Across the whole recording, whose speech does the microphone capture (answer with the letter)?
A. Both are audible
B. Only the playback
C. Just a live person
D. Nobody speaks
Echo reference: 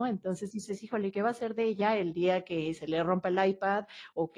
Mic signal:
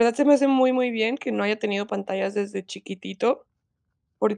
C